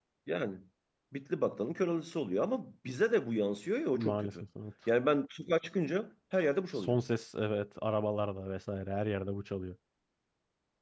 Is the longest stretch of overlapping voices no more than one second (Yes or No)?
Yes